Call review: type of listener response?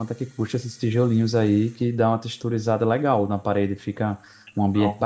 listening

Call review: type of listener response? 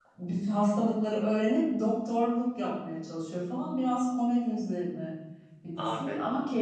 listening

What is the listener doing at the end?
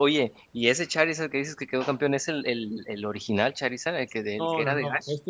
taking over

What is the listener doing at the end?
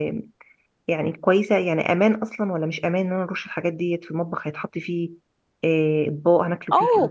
taking over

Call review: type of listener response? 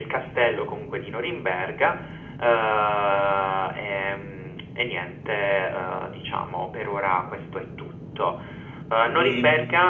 listening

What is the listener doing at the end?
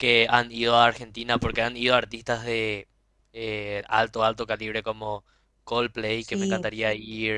listening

